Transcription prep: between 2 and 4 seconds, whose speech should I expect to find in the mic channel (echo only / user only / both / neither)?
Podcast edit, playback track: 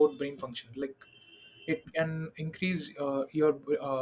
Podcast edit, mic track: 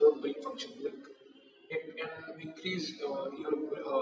echo only